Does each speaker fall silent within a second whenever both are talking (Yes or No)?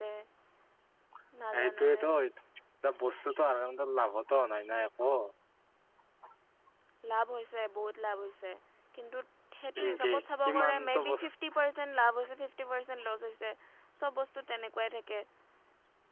No